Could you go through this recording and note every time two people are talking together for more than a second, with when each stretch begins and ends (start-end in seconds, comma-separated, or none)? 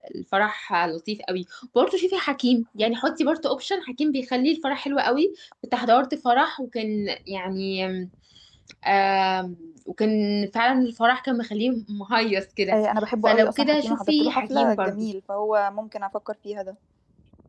13.2-14.9